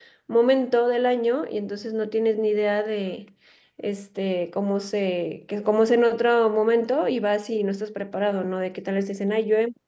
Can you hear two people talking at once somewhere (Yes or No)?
No